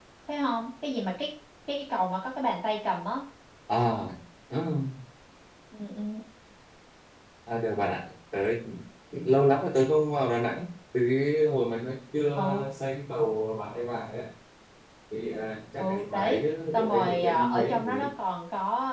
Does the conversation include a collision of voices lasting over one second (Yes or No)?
Yes